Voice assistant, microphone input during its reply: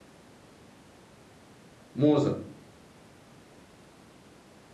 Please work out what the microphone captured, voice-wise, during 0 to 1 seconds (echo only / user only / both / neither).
neither